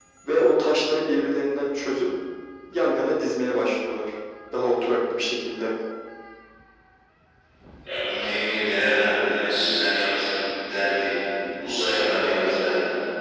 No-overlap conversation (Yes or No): Yes